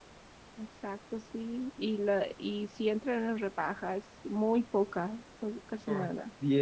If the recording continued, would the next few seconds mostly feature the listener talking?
Yes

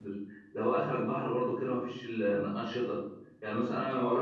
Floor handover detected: Yes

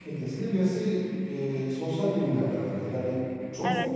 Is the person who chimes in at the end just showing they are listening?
No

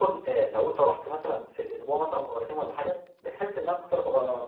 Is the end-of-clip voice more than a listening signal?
No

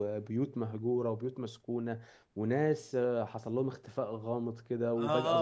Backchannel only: No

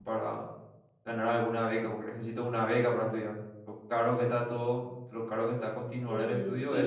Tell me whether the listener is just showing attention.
No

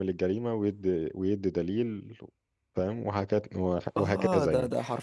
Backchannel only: No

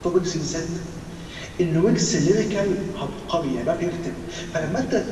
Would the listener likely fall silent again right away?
Yes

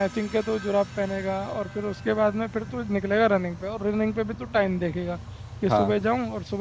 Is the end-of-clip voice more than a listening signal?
No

